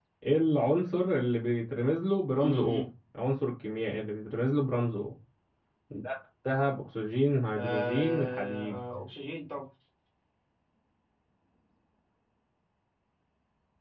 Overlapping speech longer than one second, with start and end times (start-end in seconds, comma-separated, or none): 7.5-8.8